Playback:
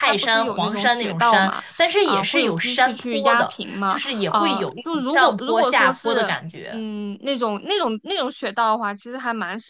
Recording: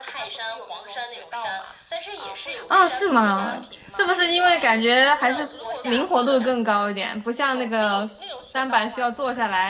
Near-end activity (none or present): present